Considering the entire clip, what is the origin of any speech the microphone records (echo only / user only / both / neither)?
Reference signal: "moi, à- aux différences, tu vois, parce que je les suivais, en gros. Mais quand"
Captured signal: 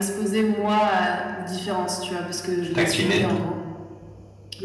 both